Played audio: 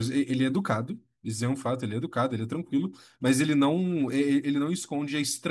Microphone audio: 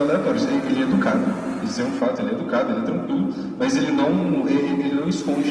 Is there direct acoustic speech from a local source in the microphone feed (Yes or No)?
No